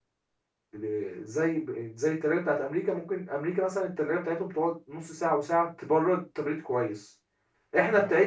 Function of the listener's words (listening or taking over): listening